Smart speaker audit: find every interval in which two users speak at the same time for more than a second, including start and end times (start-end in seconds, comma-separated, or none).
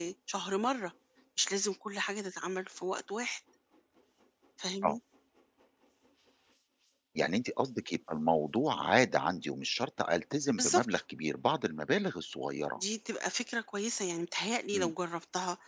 none